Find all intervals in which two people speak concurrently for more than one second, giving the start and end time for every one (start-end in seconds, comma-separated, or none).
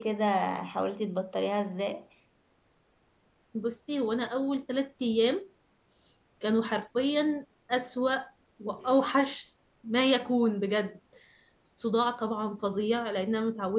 none